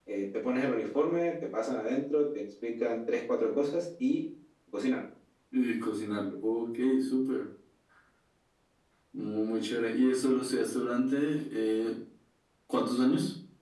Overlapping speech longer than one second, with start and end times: none

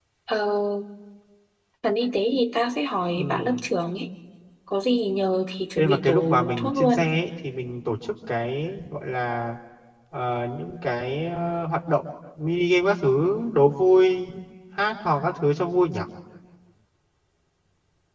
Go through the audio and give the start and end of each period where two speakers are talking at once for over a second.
5.8-7.1

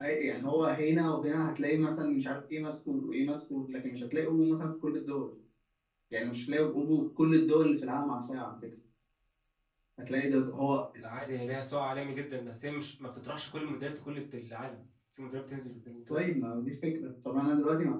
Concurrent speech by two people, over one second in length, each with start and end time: none

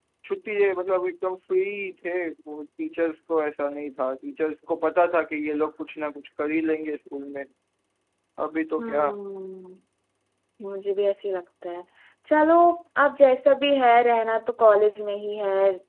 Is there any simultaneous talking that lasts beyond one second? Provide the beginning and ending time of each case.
none

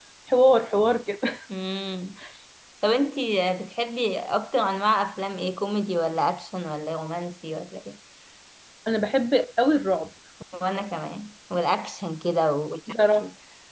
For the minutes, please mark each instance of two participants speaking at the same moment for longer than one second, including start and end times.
none

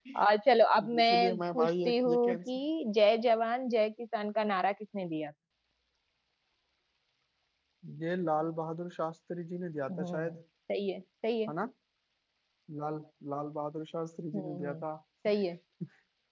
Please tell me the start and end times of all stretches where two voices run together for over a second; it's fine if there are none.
1.0-2.4

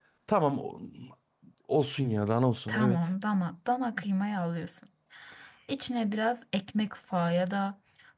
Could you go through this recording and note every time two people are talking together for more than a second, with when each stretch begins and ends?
none

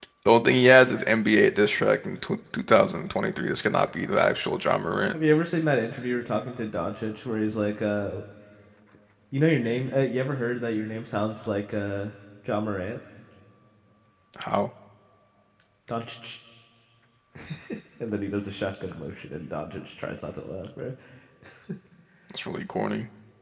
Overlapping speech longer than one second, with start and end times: none

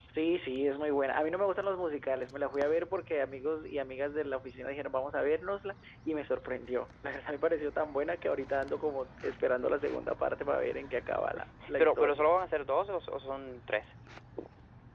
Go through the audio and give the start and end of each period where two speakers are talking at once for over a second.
none

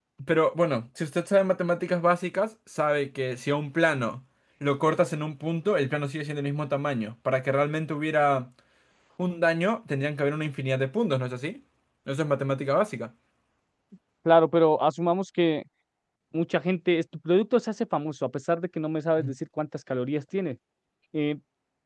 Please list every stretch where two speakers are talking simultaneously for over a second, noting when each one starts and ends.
none

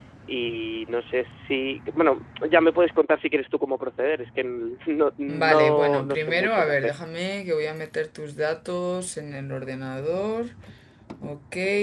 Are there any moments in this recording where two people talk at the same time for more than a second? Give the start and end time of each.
5.3-6.8

